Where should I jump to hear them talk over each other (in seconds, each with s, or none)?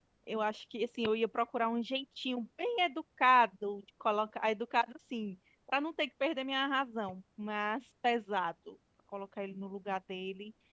none